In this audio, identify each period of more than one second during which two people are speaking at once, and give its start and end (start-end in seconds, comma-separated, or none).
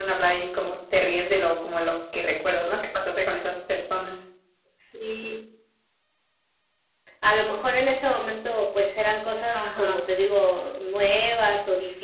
none